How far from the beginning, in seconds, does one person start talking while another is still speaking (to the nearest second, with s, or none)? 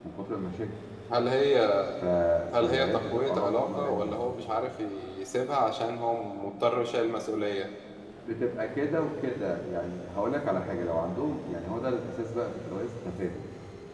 3 s